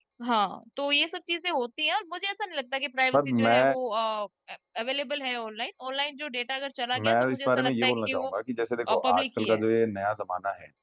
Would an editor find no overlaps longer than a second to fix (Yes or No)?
No